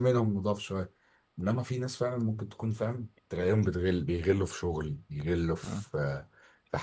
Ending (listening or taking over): listening